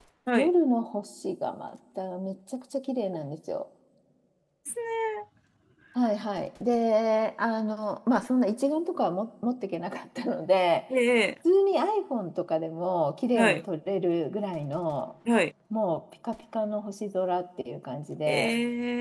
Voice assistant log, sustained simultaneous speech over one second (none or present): none